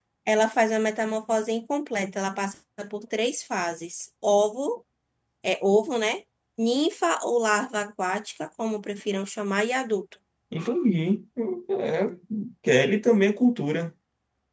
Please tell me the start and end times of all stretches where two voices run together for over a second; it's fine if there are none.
none

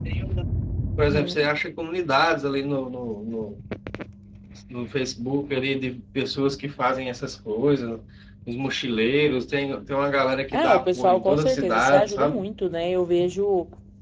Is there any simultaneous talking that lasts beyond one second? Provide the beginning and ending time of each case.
10.5-12.4

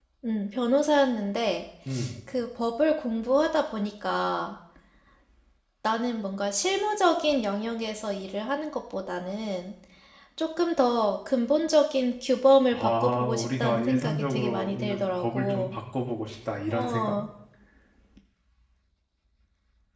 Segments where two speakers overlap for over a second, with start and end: 12.7-15.7

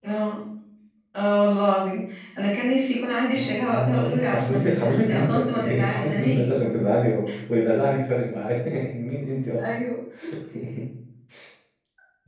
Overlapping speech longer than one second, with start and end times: 3.4-6.5

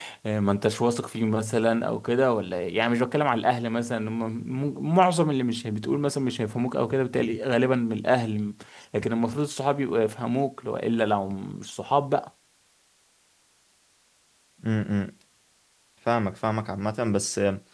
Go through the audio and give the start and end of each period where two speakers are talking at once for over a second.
none

